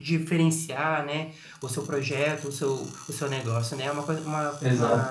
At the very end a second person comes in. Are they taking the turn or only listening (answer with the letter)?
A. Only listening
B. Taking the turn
B